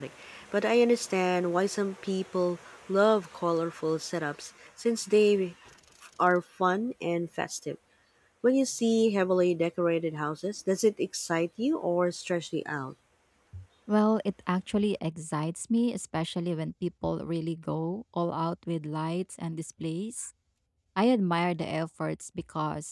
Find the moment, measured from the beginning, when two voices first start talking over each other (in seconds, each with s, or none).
none